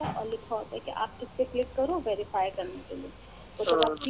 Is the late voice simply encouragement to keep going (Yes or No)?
Yes